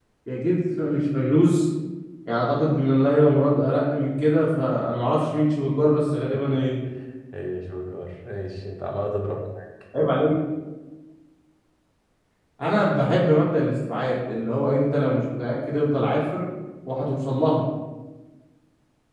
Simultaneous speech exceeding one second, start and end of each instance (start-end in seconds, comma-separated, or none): none